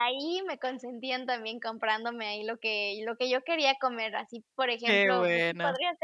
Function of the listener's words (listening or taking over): listening